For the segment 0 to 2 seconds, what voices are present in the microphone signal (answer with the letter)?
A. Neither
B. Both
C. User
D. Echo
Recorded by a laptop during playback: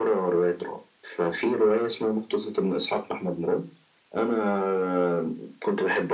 D